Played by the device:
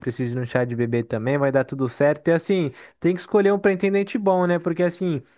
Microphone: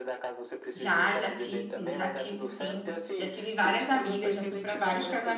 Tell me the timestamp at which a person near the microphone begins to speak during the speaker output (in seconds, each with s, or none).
0.7 s